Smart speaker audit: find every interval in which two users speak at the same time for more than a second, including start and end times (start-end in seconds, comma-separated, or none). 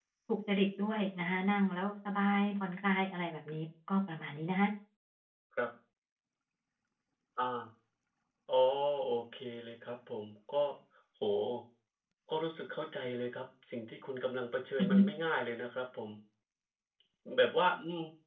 none